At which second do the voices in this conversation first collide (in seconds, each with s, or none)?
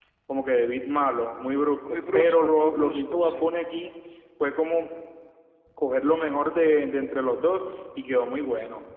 1.9 s